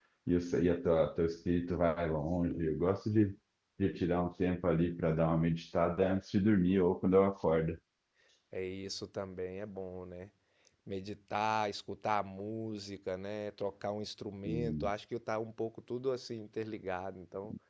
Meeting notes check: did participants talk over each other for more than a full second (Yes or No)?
No